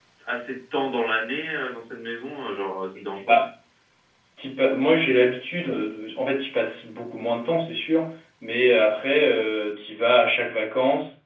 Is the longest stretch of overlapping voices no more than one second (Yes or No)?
Yes